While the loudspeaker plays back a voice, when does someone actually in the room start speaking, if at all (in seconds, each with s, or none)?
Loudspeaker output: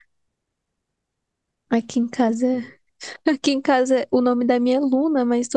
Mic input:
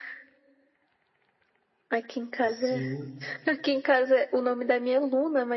2.5 s